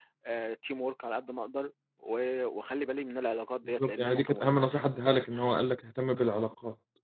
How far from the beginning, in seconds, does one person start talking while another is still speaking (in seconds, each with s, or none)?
3.8 s